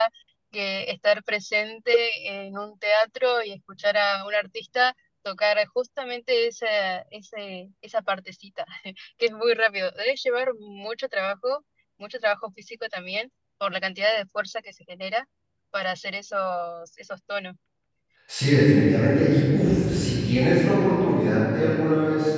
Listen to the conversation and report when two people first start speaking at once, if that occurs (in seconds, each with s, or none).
none